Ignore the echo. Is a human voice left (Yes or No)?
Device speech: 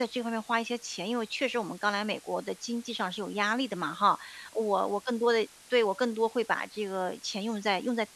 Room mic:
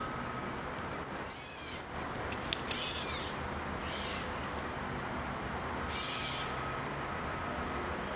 No